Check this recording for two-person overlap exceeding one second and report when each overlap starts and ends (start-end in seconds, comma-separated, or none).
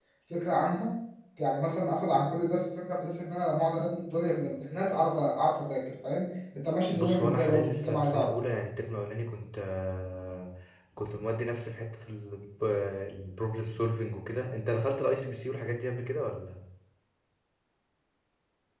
6.9-8.3